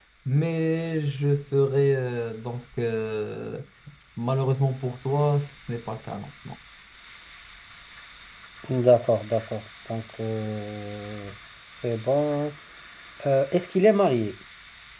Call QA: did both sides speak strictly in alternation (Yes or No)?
Yes